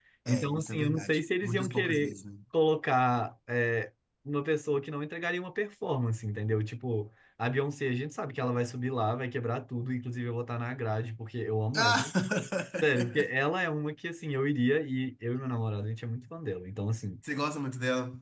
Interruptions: present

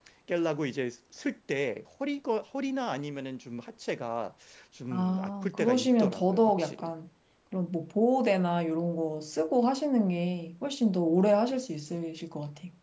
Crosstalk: present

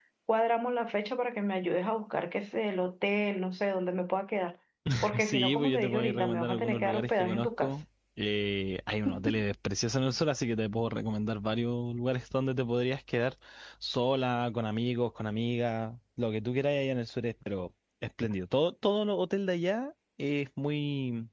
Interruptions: present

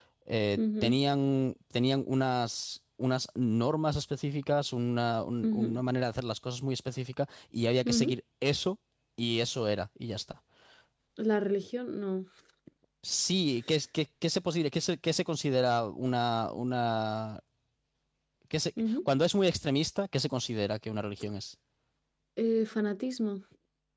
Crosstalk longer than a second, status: none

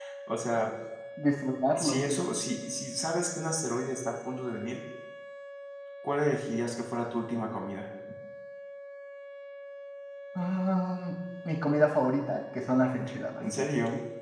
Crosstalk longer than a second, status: none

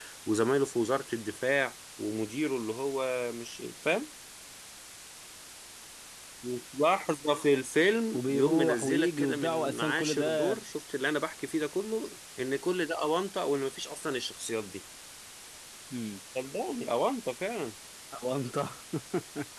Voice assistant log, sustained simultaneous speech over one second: present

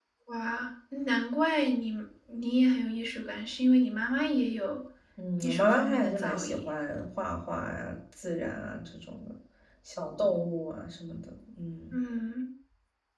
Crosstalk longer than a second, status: present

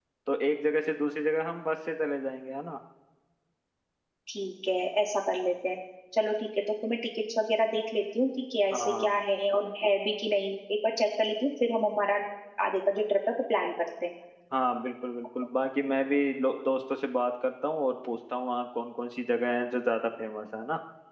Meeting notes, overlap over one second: none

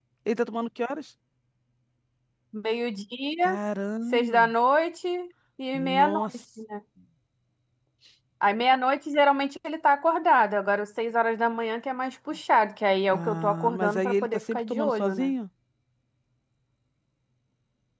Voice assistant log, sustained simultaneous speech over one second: present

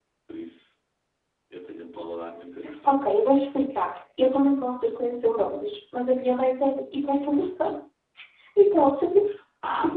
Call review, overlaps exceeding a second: none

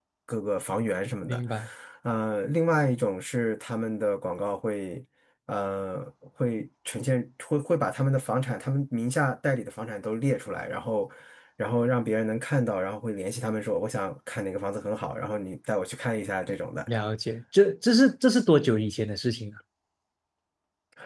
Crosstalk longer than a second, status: none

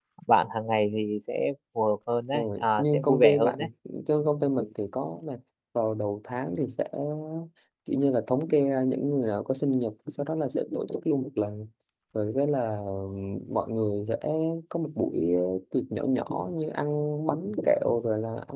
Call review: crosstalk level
present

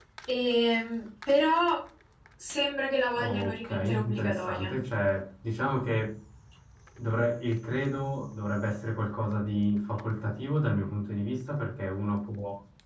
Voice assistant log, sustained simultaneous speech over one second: present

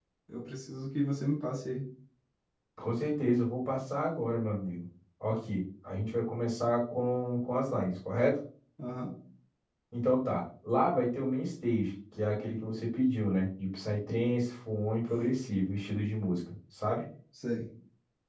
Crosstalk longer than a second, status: none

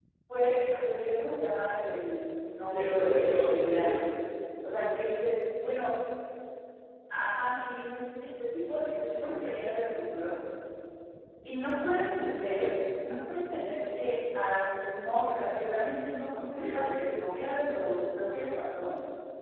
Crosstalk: present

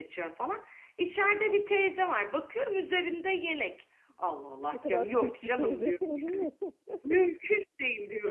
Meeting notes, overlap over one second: present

